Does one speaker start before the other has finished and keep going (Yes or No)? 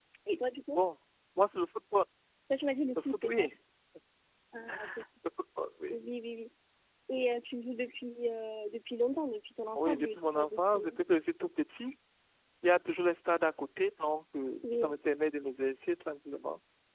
Yes